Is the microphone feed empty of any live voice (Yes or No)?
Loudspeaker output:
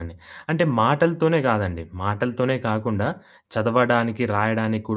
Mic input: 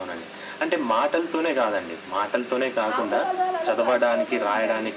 No